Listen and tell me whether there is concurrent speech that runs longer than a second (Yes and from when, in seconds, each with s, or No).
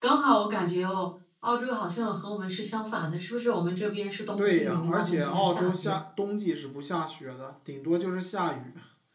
Yes, from 4.4 s